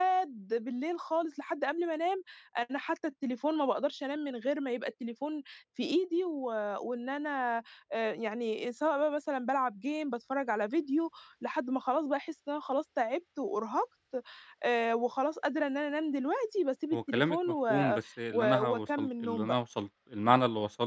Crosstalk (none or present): present